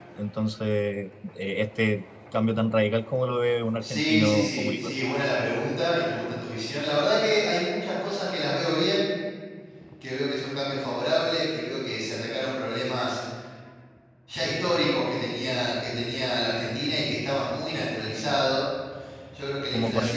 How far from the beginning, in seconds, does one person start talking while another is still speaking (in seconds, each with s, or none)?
3.8 s